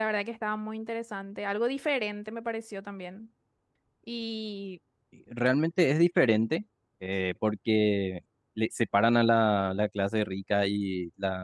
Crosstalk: none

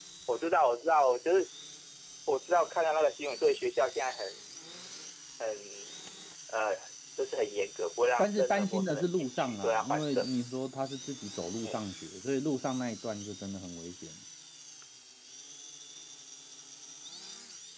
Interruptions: present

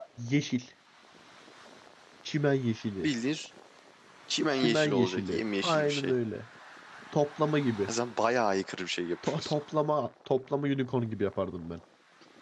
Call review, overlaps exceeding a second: present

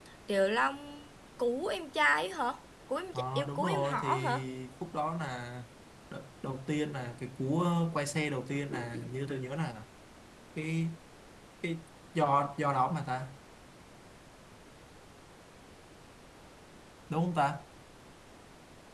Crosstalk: present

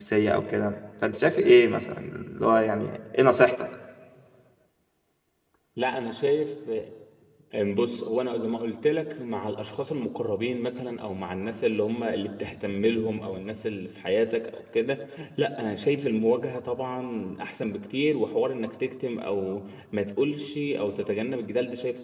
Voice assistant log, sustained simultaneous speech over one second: none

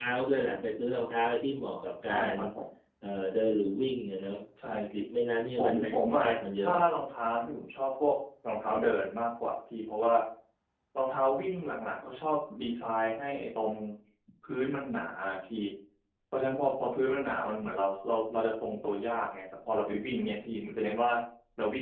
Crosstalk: present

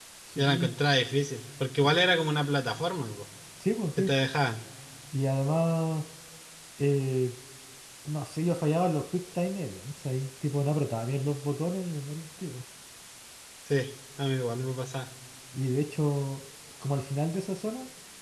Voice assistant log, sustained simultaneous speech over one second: none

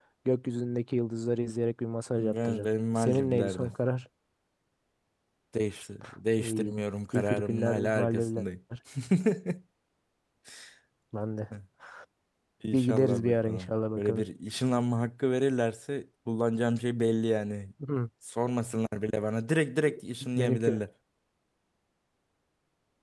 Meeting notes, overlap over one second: present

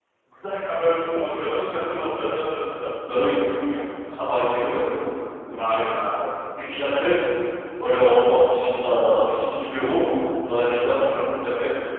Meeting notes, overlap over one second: none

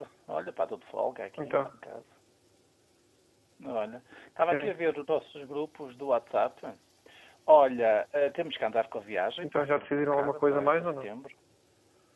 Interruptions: present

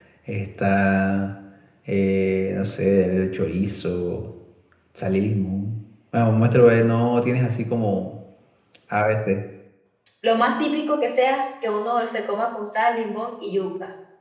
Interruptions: none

